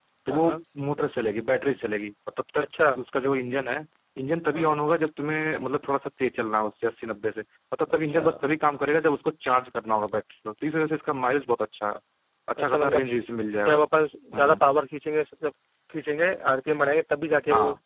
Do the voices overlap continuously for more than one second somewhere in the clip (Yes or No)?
No